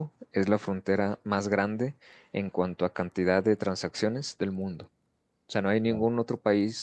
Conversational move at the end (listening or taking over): listening